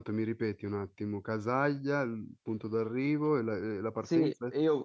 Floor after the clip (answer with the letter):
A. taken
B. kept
A